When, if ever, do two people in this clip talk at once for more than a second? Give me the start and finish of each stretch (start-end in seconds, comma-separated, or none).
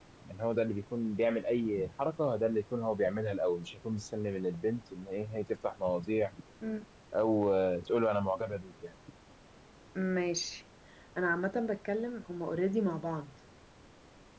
none